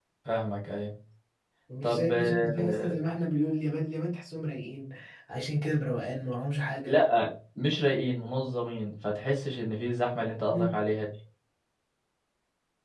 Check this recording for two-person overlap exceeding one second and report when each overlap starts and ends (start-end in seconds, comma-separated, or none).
1.8-3.0